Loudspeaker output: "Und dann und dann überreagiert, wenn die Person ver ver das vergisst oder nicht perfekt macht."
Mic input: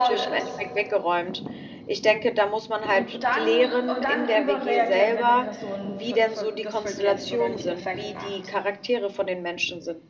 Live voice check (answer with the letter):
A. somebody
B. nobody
A